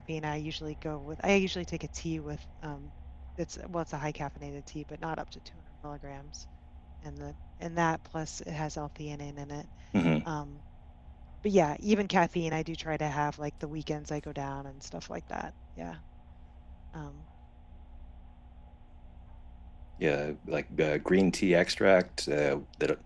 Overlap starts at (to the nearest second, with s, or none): none